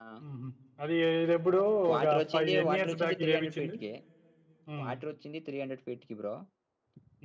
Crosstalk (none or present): present